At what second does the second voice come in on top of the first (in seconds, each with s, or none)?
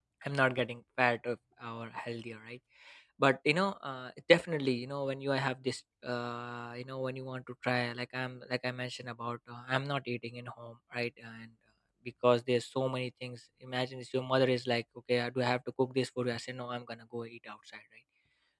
none